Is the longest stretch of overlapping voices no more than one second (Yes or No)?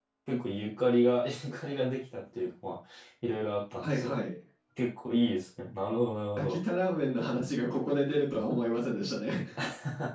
Yes